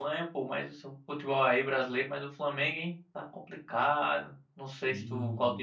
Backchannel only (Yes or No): Yes